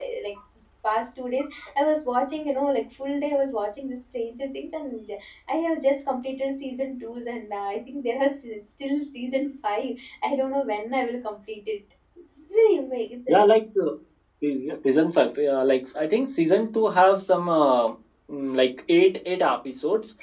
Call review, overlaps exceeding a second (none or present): none